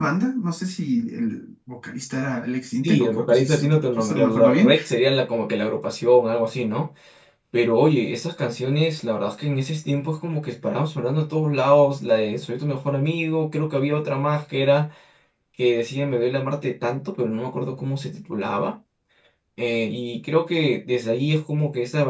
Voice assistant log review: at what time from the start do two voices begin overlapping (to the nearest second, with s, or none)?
3 s